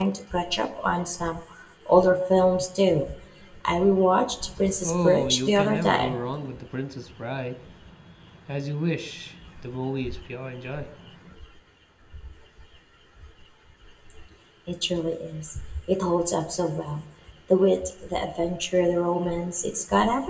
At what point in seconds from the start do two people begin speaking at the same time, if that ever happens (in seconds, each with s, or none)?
4.8 s